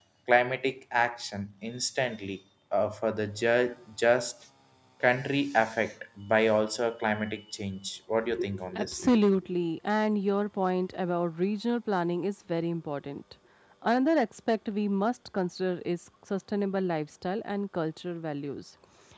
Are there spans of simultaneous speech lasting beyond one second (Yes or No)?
No